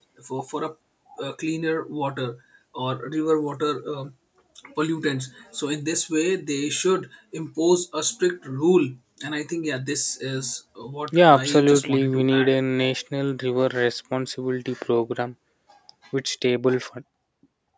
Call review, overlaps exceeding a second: present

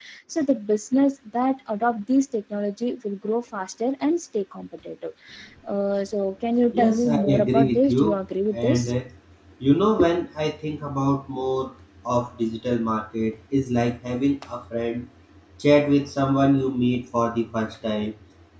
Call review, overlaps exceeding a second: present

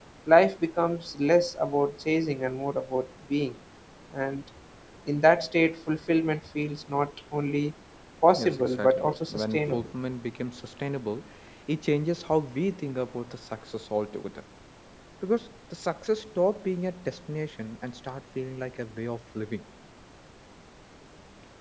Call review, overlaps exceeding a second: present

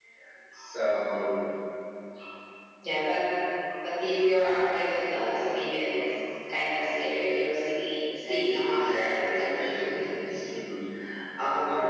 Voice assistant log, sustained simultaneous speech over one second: present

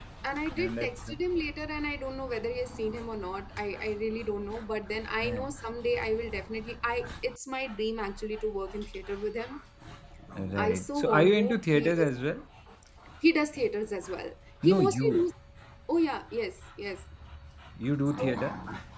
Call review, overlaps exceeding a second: present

